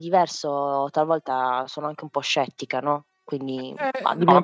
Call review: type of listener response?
taking over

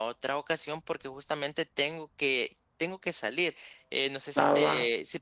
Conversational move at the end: listening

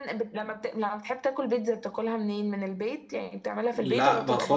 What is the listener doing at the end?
taking over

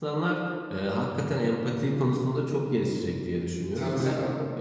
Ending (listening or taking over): listening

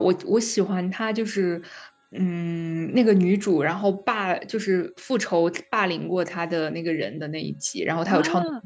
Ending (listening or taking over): taking over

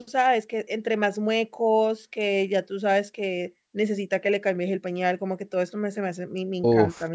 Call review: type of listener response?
taking over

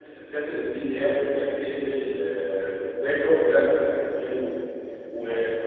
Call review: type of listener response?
listening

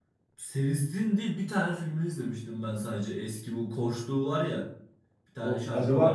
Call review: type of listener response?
taking over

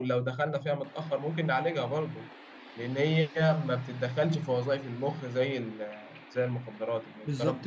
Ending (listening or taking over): taking over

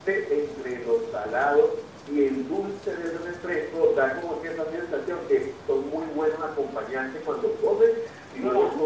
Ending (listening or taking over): listening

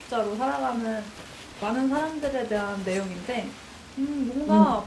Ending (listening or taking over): listening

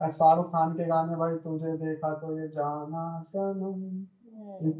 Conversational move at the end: taking over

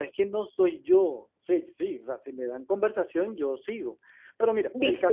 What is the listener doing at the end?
listening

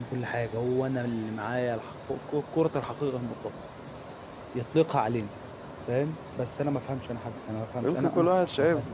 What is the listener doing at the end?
taking over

